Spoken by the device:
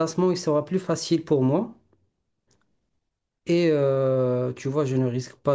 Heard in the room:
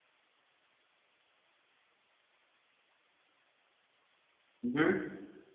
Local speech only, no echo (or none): Mhm,